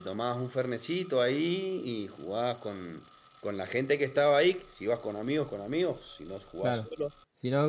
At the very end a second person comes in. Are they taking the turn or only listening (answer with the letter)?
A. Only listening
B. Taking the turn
B